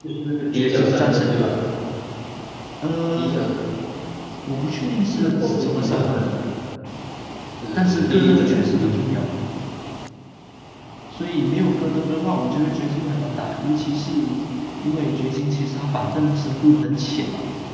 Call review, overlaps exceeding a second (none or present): present